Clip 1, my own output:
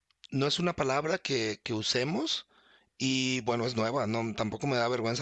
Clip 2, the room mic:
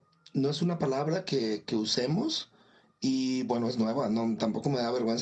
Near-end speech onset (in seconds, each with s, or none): none